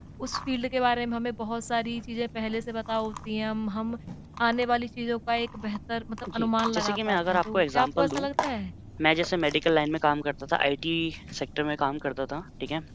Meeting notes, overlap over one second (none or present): present